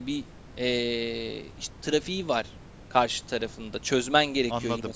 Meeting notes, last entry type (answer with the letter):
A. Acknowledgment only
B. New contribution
B